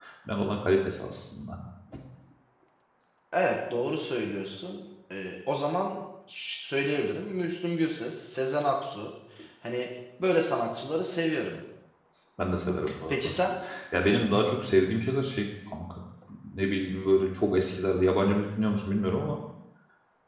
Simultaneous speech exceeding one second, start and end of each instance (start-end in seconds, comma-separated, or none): none